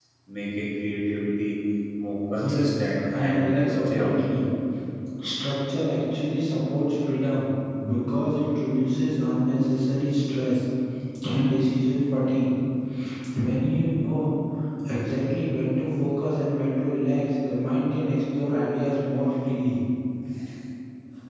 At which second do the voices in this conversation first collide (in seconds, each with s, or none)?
2.4 s